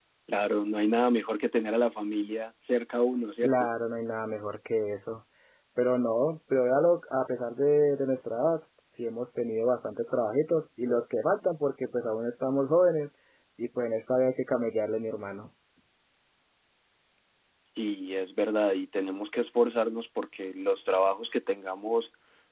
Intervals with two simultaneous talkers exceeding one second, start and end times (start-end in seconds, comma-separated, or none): none